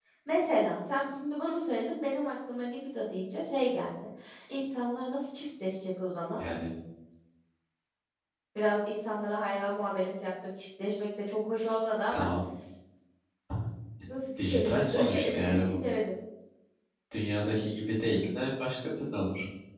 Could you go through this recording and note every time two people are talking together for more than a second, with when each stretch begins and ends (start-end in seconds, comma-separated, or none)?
14.4-15.8